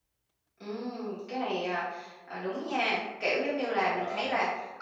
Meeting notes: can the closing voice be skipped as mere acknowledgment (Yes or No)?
Yes